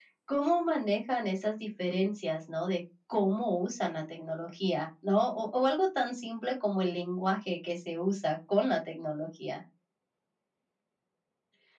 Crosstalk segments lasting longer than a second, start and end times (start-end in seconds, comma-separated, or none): none